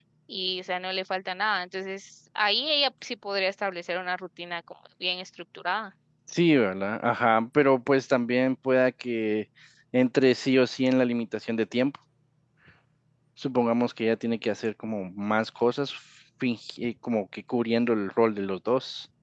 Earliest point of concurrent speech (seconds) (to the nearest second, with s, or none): none